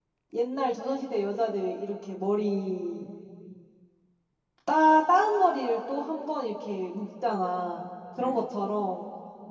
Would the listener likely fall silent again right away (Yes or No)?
Yes